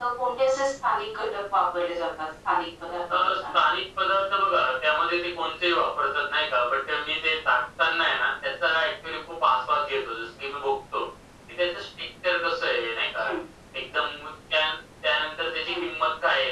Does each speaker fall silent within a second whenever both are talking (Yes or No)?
Yes